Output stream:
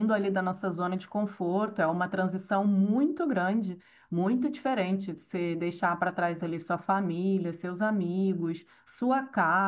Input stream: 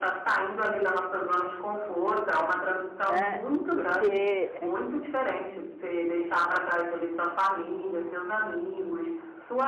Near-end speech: present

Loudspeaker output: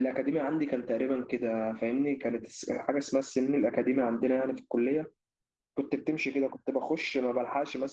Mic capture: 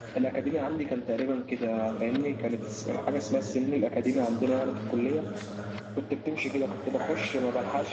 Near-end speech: present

